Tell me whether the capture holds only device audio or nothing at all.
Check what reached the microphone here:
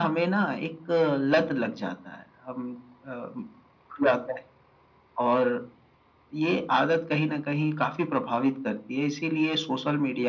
Yes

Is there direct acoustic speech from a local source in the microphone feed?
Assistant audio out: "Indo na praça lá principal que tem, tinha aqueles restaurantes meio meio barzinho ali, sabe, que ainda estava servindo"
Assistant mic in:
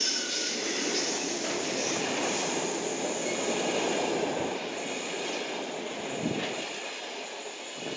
No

